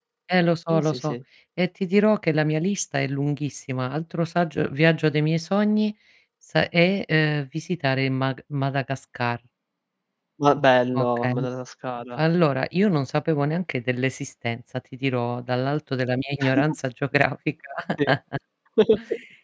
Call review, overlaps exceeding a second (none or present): none